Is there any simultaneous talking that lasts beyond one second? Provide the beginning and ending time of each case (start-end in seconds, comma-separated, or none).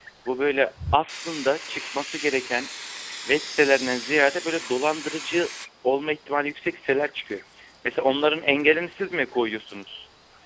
none